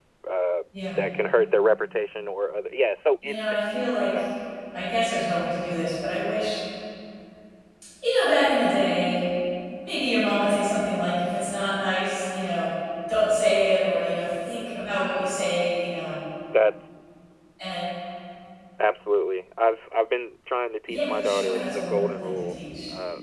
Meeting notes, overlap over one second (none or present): present